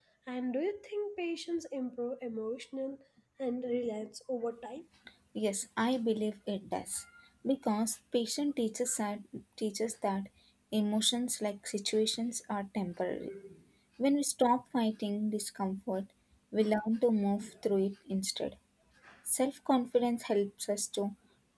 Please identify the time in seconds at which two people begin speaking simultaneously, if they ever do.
none

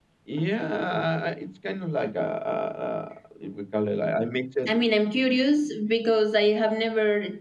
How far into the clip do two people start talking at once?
none

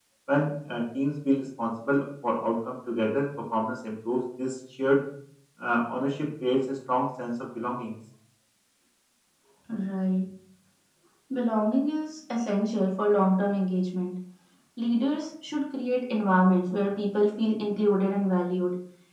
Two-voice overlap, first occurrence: none

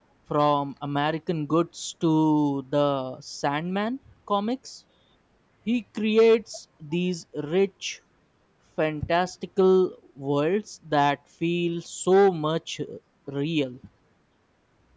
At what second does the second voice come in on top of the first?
none

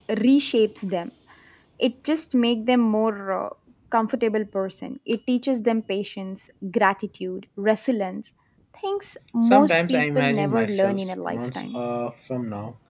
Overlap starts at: 9.5 s

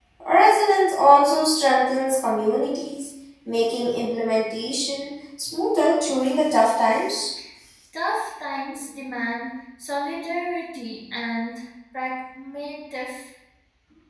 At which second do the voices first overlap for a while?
none

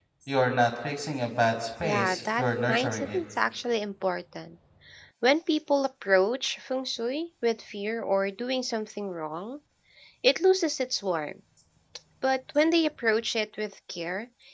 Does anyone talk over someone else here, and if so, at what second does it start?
1.8 s

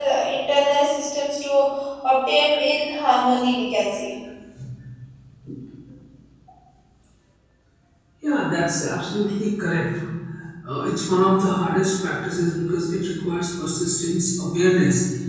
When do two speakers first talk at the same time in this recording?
none

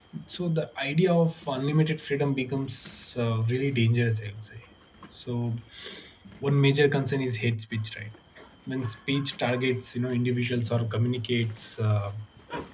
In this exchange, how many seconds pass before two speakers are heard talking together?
none

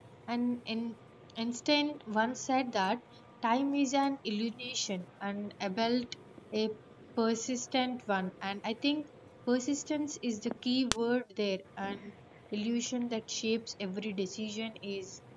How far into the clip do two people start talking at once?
none

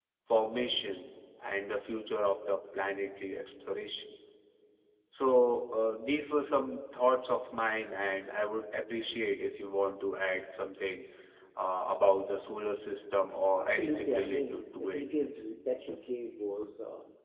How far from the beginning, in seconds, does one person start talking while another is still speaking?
13.6 s

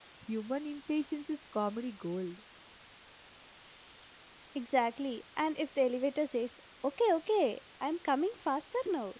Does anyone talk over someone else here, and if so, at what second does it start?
none

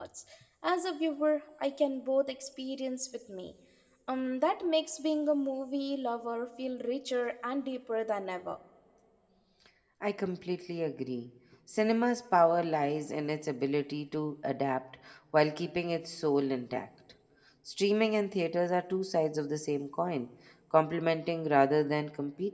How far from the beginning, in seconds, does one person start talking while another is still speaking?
none

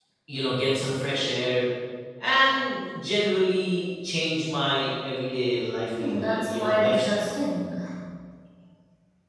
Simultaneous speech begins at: 5.9 s

